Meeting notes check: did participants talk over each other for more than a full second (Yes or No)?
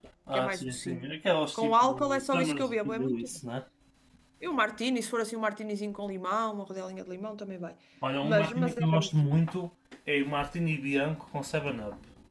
Yes